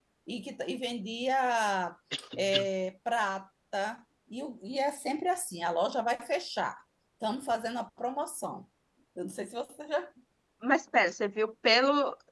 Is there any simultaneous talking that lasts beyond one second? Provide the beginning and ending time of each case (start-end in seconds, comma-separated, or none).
none